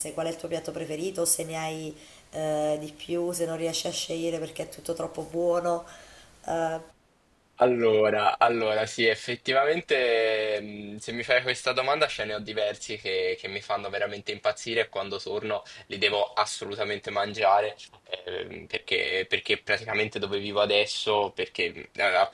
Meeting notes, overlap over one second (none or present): none